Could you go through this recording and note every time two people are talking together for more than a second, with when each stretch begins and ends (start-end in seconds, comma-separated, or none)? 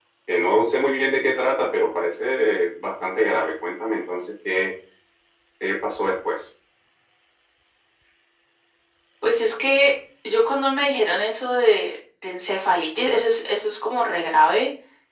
none